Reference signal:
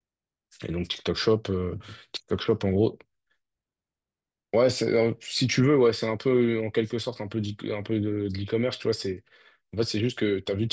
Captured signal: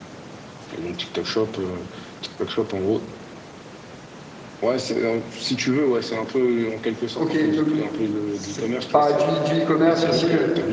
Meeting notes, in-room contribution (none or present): present